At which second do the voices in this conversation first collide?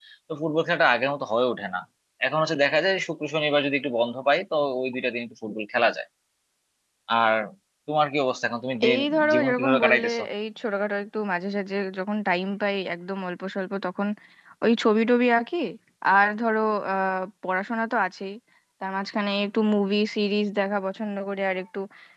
8.8 s

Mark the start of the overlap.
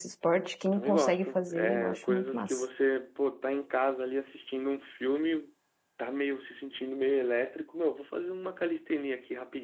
0.7 s

